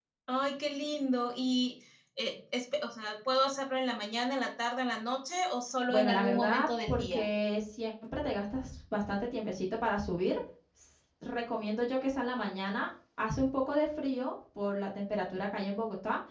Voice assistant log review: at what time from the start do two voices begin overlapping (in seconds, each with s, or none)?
5.9 s